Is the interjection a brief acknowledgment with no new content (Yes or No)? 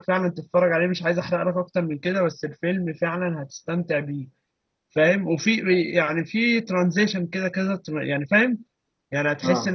Yes